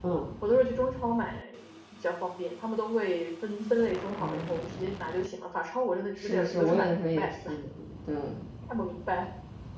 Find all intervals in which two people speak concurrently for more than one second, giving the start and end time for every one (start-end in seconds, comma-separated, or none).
6.1-7.5